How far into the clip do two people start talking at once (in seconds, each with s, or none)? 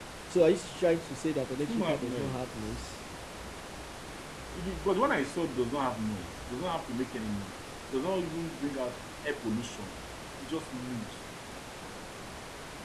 1.5 s